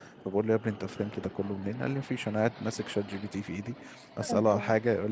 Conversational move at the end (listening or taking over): listening